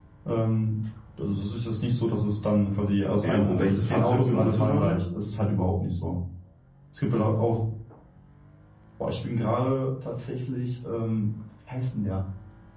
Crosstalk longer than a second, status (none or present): present